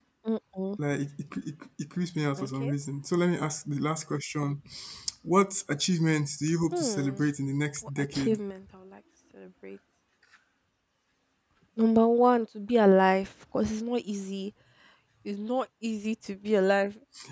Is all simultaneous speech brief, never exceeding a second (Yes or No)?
Yes